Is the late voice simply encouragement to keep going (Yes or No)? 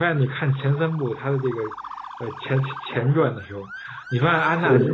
Yes